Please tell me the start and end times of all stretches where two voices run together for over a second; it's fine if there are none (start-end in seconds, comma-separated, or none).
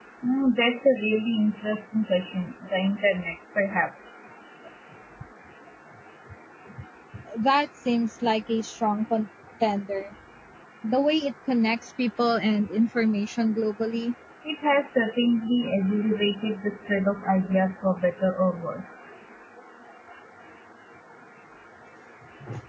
none